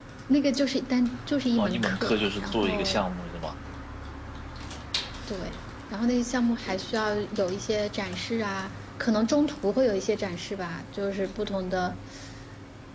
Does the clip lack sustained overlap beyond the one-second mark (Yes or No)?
No